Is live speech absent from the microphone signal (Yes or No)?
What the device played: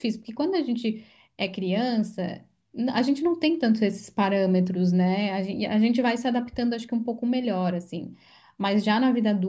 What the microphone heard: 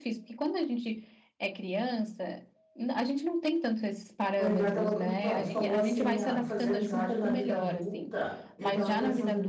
No